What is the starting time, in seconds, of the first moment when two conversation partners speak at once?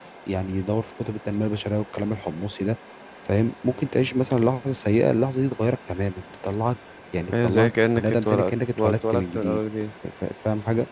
7.3 s

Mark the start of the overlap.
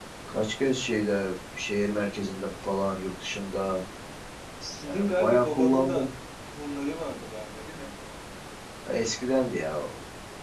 4.8 s

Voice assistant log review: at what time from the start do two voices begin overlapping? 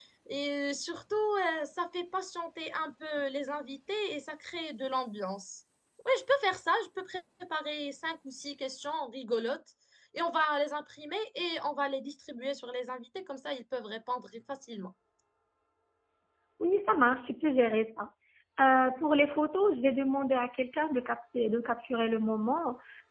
none

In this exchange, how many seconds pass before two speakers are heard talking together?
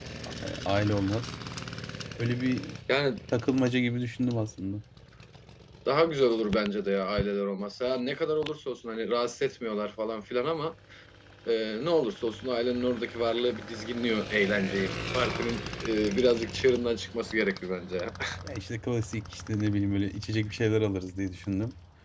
none

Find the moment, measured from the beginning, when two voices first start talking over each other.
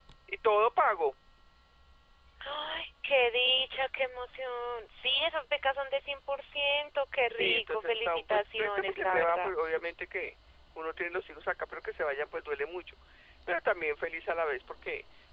7.3 s

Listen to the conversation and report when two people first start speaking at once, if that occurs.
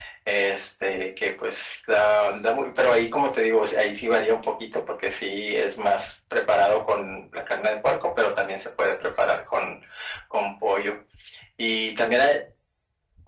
none

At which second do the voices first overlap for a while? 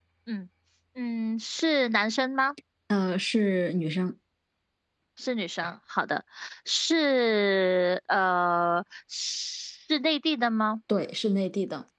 none

